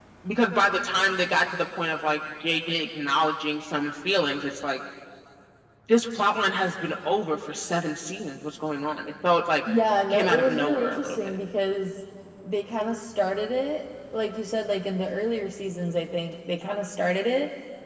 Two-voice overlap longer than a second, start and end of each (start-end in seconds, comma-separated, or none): 10.1-11.3